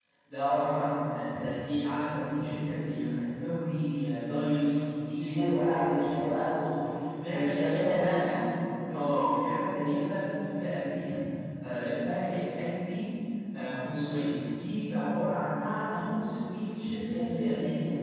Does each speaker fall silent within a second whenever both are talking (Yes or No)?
No